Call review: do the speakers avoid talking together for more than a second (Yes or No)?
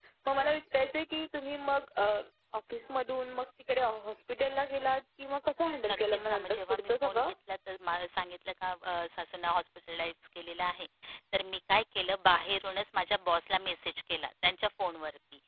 No